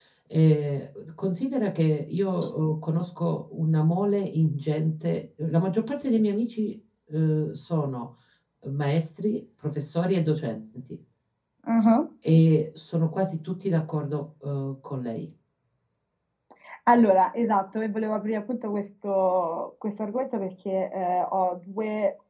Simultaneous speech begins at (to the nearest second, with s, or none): none